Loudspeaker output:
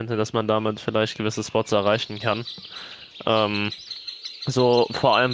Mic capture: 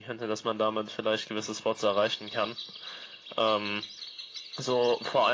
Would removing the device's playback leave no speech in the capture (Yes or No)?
Yes